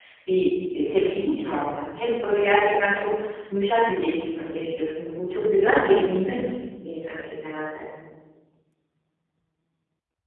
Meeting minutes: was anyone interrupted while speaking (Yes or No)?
No